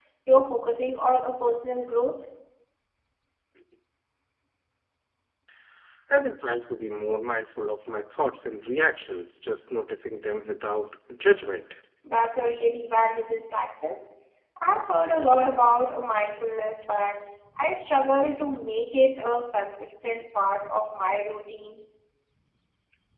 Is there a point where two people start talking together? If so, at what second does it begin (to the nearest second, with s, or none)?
none